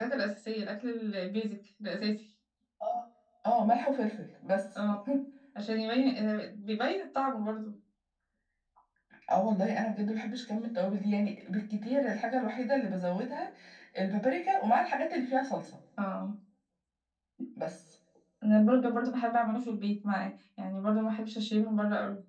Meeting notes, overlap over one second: none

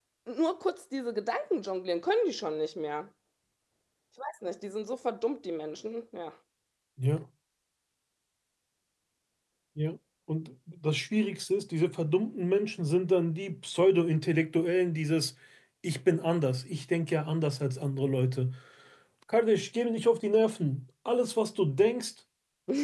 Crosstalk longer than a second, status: none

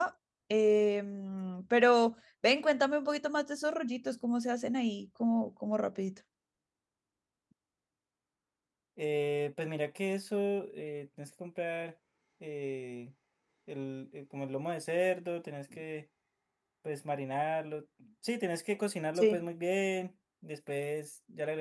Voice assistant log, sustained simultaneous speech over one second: none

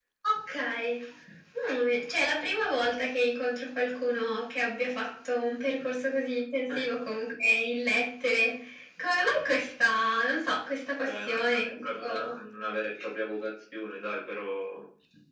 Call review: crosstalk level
present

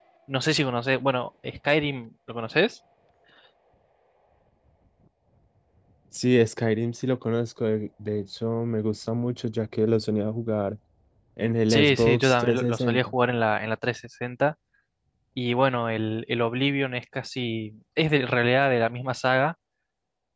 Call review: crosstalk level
present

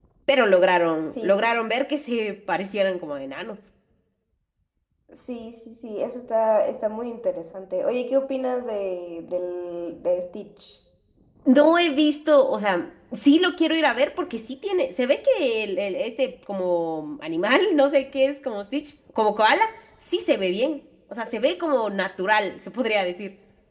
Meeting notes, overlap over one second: none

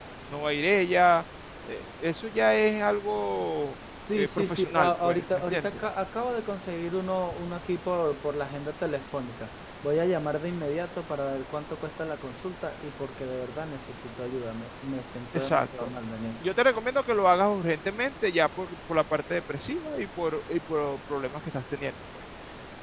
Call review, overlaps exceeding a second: present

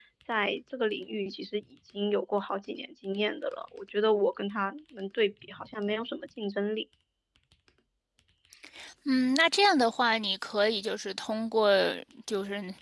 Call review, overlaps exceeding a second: none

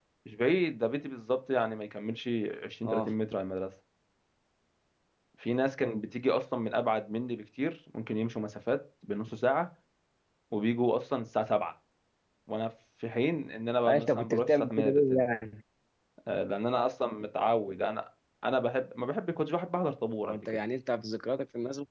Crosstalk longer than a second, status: present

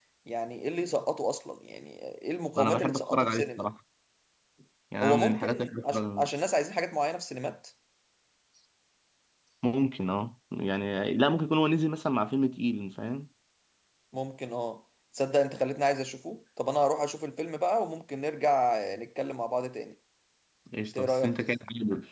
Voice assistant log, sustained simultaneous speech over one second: present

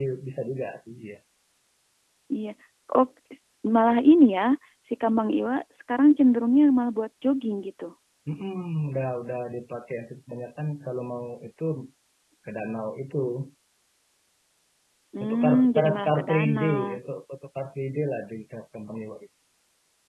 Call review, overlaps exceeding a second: present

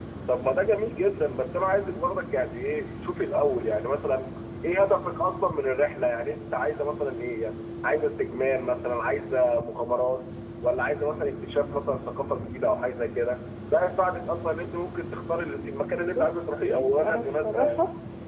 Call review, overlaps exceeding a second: present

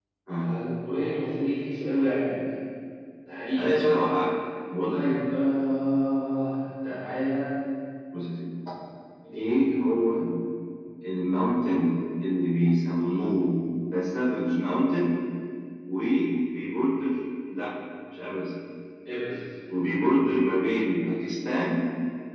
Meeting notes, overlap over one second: none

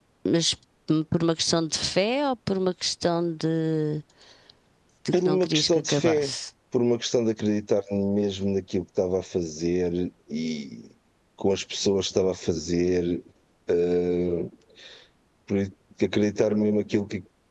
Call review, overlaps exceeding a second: present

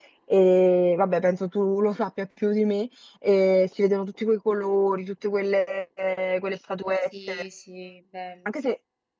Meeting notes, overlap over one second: none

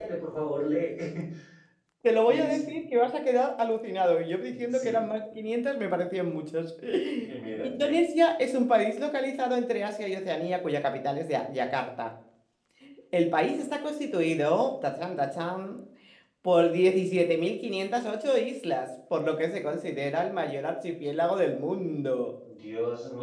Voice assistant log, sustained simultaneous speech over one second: none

